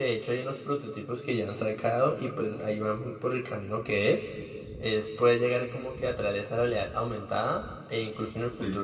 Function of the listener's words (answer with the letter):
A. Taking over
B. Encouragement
B